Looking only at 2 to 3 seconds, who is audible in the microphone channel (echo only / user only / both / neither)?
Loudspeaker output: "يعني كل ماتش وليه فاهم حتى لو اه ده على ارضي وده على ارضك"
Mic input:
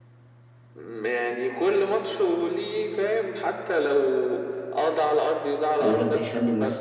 echo only